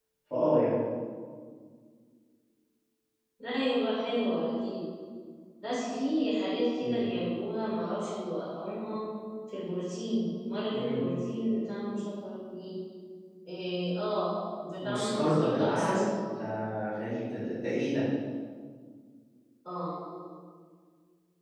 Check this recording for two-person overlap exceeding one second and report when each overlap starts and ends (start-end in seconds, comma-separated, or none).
14.8-16.1